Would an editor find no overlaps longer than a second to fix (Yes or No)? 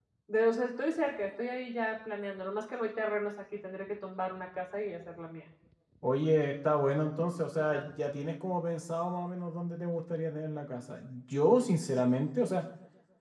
Yes